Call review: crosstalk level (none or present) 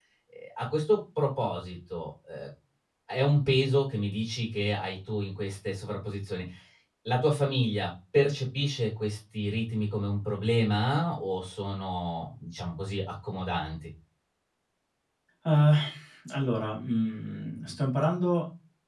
none